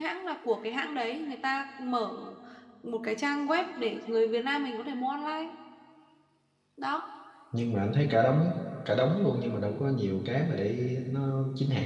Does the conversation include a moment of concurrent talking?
No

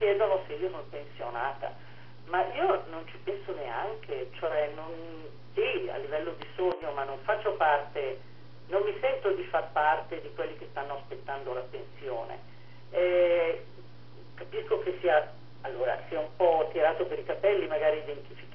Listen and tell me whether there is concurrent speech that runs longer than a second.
No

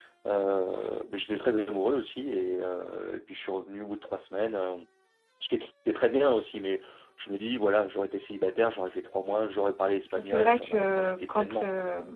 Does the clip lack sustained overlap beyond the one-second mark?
No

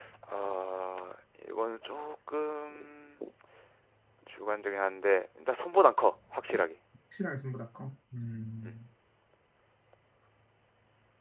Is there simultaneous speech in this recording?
No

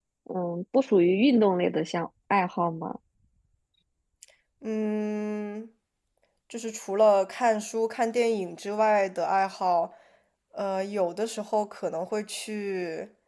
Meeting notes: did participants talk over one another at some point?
No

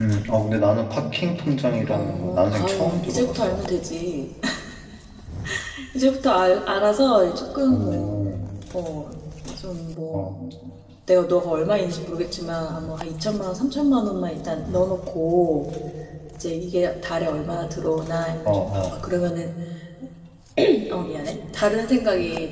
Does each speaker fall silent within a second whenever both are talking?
No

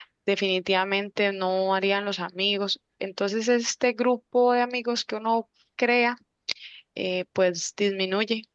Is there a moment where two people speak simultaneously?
No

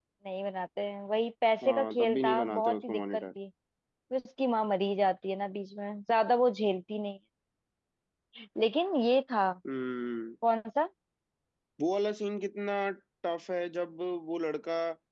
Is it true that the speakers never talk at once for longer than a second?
No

